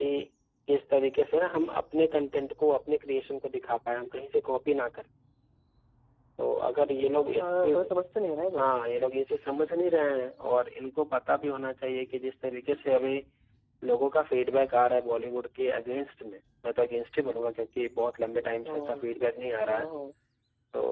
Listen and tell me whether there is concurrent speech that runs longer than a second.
No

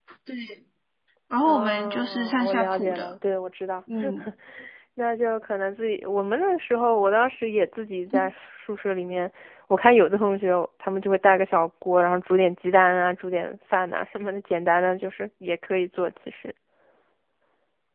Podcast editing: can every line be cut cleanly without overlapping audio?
No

